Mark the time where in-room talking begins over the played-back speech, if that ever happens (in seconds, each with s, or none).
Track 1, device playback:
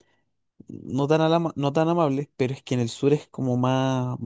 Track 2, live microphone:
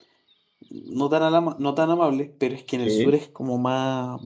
2.8 s